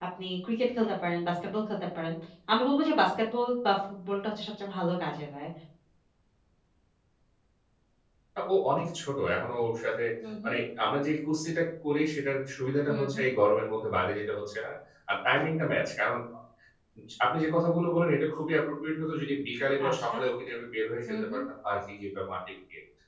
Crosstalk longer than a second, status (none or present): none